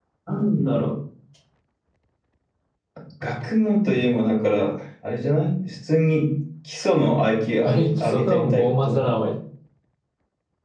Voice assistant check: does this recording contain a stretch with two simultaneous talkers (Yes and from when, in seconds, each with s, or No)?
Yes, from 7.6 s